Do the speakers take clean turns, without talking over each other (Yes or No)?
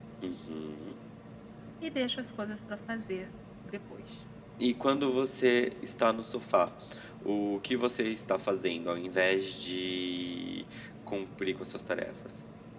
Yes